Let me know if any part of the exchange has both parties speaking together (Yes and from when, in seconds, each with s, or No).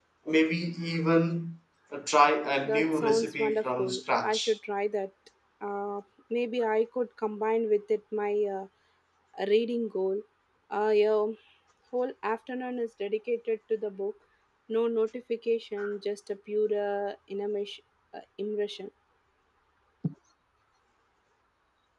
Yes, from 2.6 s